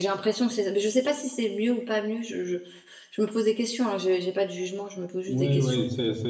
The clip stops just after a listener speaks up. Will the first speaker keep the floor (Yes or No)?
No